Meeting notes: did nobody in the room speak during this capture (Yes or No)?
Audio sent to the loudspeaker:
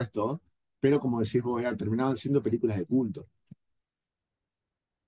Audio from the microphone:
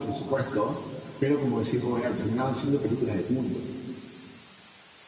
Yes